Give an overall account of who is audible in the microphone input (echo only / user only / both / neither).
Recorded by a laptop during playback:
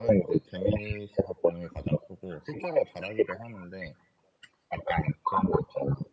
echo only